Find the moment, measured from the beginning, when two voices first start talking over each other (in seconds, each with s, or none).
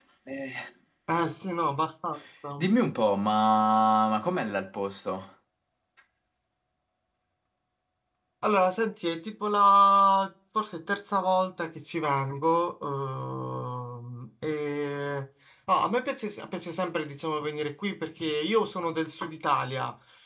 none